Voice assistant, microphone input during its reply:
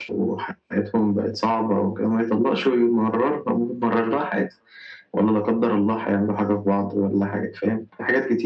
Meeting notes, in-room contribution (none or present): none